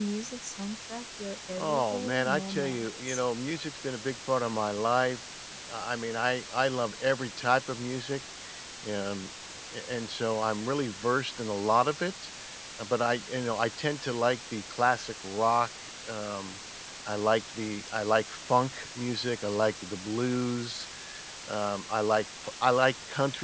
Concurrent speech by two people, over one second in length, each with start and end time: 1.6-3.2

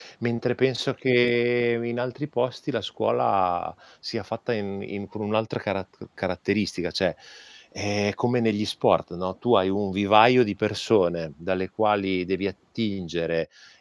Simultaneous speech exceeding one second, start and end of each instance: none

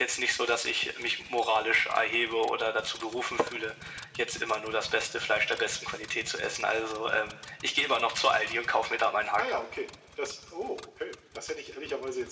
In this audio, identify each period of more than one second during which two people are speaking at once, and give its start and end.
none

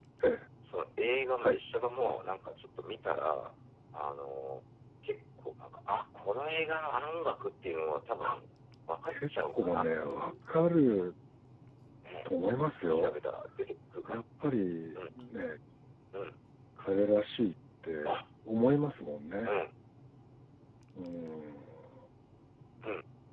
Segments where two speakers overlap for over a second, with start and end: 9.1-10.3

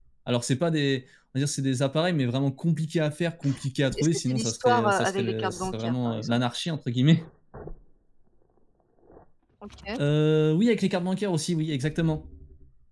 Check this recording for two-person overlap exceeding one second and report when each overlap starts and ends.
4.0-6.4

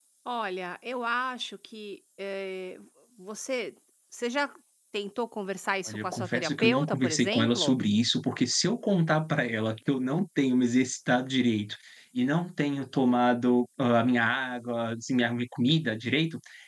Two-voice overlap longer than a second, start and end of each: 5.9-7.8

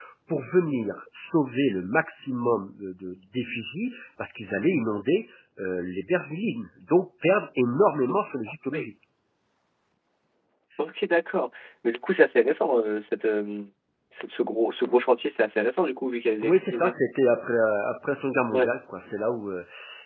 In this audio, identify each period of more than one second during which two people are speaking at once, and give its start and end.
none

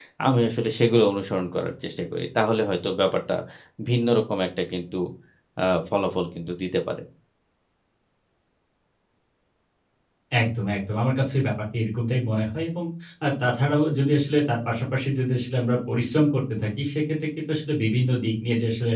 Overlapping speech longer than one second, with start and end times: none

